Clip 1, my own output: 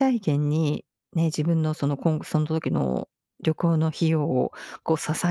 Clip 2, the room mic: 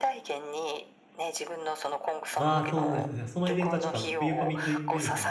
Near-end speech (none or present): present